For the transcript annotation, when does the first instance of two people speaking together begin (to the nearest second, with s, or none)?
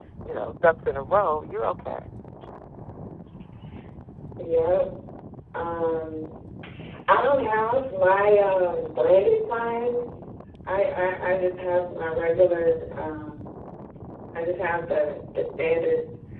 none